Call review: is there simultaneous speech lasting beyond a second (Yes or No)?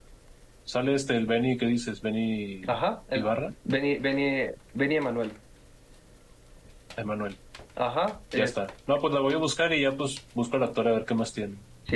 No